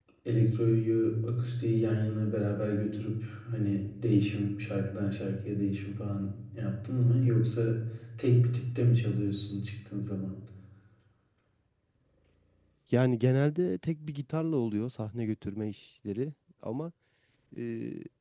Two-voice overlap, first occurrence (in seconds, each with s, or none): none